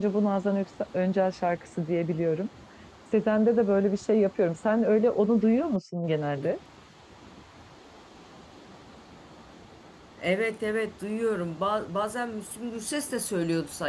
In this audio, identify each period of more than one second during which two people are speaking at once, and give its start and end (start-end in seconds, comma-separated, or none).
none